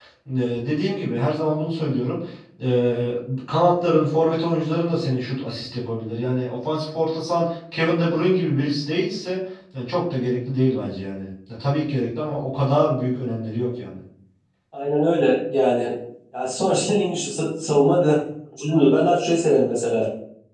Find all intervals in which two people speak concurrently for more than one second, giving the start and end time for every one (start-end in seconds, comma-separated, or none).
none